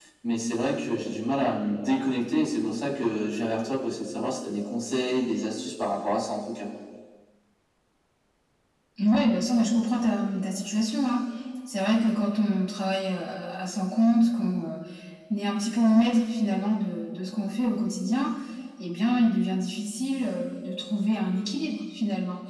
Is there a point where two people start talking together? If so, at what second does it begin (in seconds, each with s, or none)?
none